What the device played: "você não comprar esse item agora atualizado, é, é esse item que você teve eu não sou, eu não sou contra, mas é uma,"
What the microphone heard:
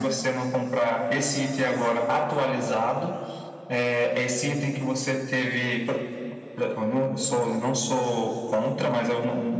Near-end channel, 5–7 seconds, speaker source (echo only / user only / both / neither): echo only